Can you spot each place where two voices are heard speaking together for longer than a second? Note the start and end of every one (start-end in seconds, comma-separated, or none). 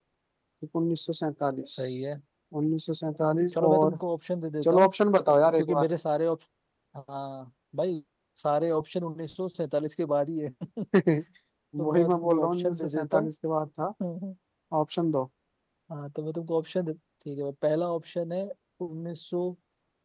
11.9-13.2